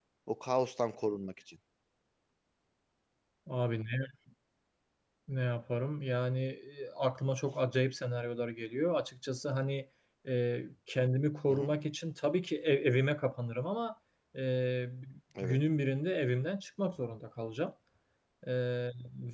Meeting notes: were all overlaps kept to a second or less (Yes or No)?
Yes